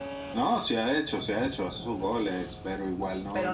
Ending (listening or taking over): taking over